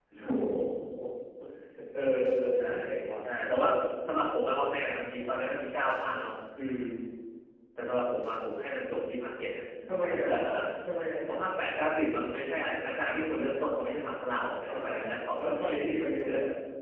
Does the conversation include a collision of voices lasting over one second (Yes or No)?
No